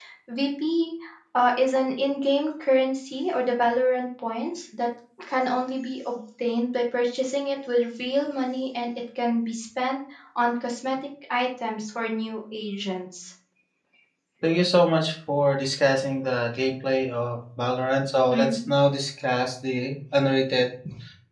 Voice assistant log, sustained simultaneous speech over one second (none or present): none